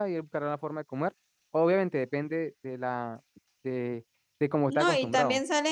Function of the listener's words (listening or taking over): taking over